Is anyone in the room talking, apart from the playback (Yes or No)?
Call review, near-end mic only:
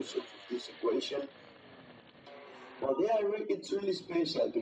No